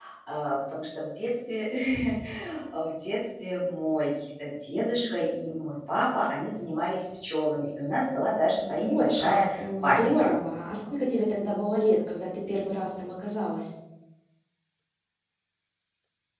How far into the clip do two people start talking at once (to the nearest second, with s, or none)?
9 s